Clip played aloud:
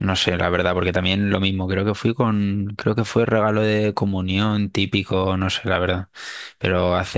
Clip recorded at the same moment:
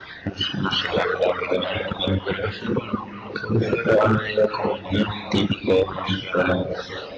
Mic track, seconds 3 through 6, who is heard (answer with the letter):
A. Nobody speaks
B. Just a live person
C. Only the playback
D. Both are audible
C